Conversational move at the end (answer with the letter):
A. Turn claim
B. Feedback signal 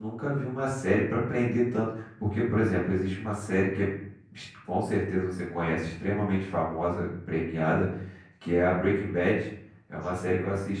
B